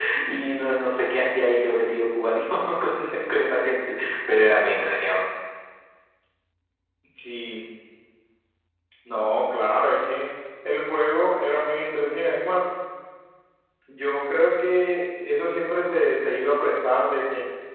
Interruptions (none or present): none